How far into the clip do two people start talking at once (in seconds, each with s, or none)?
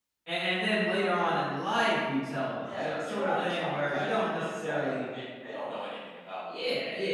2.6 s